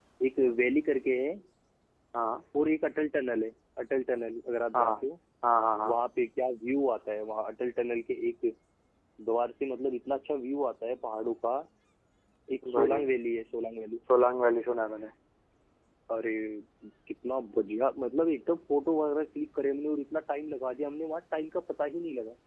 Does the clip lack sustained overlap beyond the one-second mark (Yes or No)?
Yes